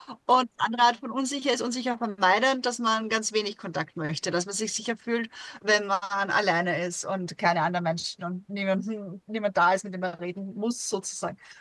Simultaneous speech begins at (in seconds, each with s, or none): none